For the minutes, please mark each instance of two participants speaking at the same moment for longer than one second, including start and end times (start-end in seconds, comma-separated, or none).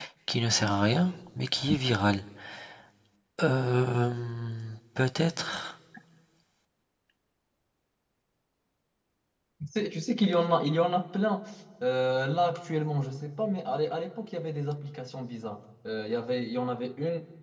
none